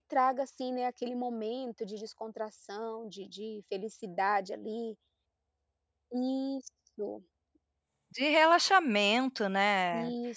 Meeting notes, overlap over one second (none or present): none